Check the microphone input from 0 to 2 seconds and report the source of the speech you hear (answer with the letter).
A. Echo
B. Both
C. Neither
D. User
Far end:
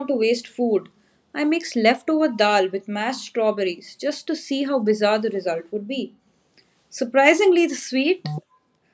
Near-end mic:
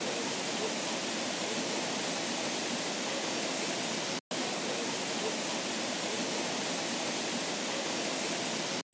C